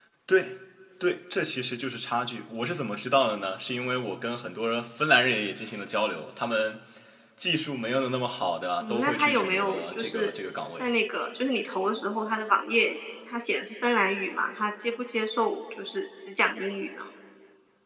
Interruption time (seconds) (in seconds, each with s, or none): 8.8 s